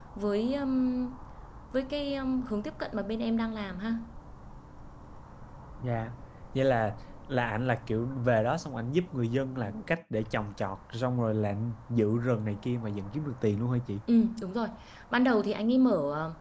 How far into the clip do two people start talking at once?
none

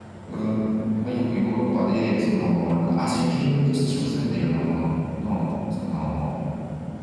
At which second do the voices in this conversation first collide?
none

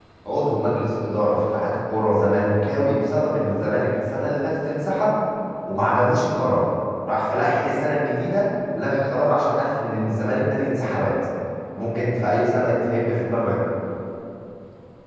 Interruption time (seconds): none

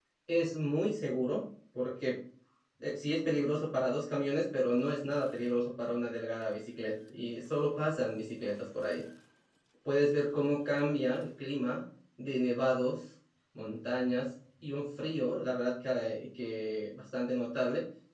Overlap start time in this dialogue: none

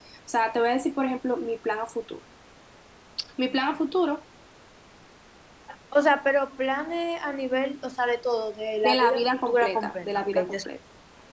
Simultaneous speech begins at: 8.8 s

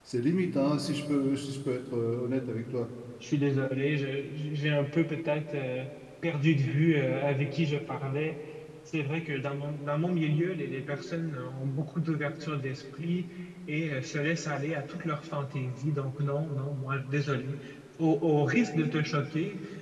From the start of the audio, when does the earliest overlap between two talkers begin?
none

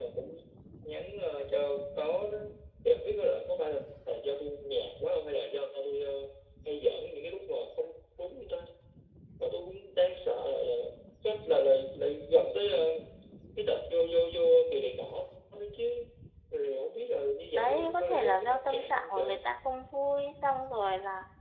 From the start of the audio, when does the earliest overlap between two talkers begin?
17.5 s

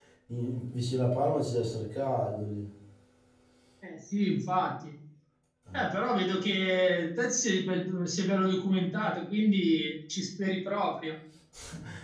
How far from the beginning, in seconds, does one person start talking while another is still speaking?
none

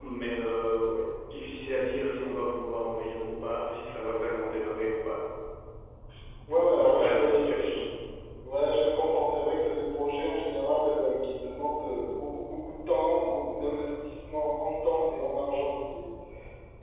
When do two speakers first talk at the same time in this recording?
6.5 s

